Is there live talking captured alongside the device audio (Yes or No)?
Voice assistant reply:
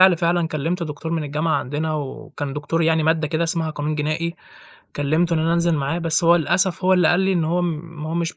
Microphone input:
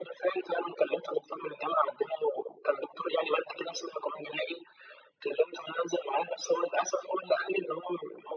No